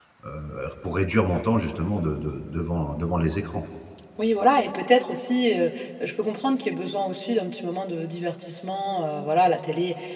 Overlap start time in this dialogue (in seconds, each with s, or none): none